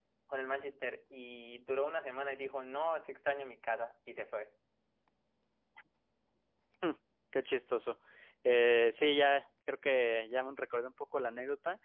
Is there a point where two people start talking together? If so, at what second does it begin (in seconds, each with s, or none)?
none